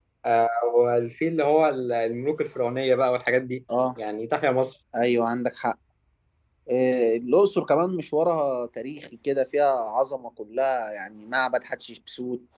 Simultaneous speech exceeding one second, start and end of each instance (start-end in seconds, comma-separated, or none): none